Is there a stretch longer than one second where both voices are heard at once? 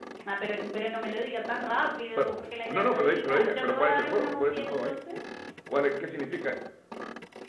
Yes, from 2.1 s

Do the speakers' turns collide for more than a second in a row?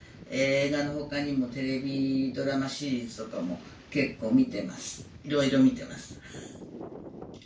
No

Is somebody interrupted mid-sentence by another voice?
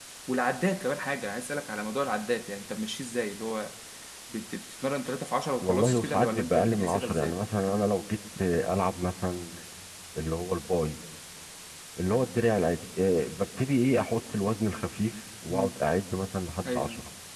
Yes, from 5.6 s

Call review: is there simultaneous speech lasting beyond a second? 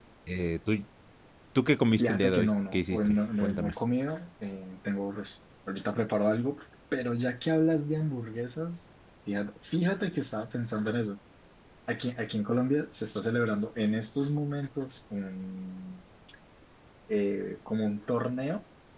Yes, from 2.0 s

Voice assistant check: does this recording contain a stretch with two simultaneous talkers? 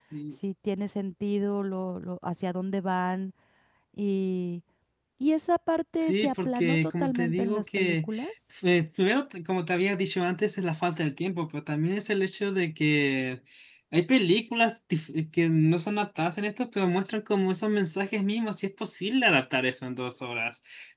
Yes, from 6.0 s

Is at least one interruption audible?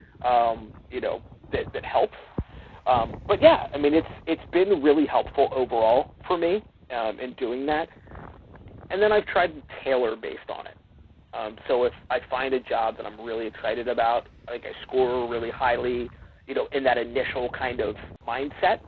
No

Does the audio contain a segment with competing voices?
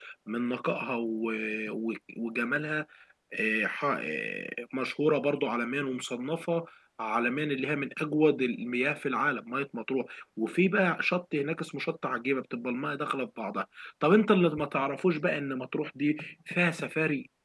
No

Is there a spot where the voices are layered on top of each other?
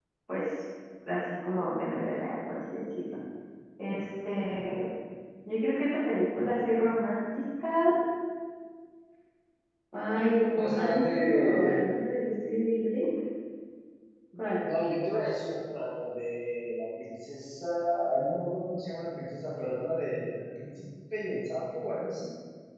Yes, from 10.6 s

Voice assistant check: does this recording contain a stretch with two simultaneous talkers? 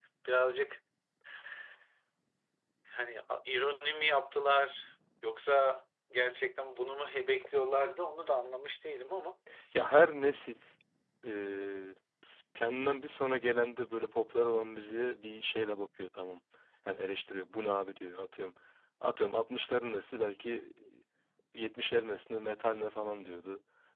No

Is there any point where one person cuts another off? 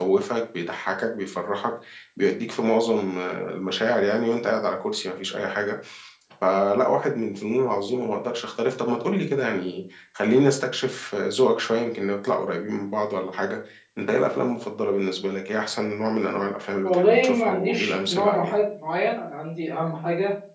Yes, from 16.8 s

